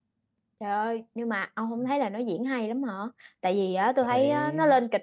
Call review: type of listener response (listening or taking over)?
listening